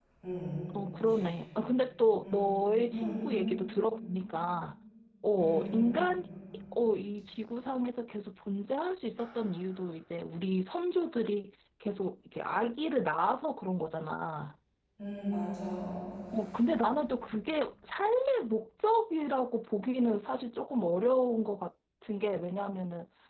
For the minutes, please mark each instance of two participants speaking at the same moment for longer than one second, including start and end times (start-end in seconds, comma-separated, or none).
none